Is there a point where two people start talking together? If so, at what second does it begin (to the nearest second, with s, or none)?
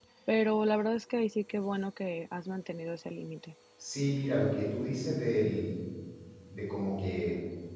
none